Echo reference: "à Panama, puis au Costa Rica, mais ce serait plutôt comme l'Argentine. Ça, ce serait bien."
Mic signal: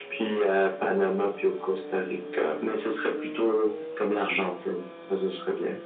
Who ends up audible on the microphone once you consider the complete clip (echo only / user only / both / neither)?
echo only